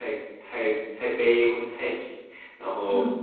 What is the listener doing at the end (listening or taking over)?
listening